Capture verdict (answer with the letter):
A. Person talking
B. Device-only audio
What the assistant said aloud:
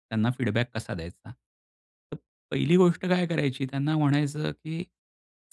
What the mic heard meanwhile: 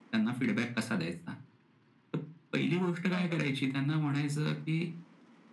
A